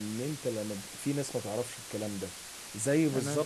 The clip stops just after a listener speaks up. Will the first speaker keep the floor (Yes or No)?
Yes